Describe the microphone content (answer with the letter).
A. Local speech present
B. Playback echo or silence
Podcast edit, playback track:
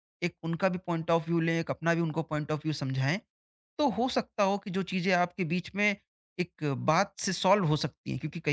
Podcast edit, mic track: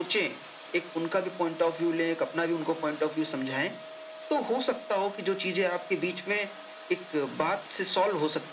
B